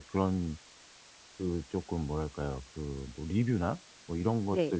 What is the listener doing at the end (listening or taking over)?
listening